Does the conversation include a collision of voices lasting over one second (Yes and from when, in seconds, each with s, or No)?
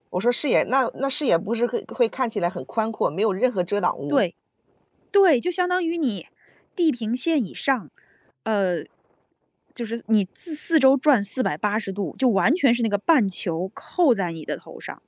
No